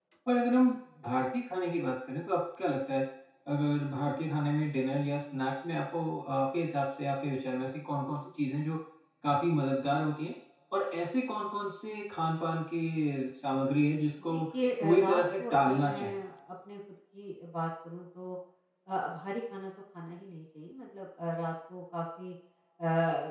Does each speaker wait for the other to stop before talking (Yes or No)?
No